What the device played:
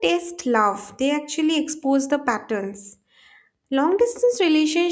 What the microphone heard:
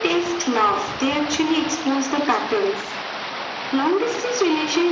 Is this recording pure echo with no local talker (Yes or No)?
Yes